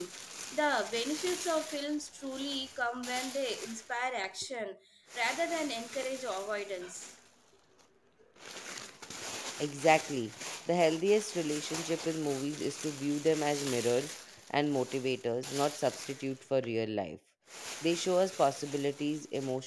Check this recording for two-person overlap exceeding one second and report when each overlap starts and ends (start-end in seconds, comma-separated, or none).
none